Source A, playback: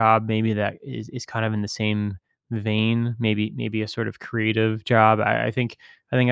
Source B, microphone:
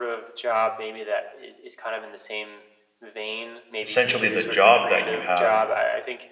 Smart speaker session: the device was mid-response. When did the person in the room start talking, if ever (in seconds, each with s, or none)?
3.8 s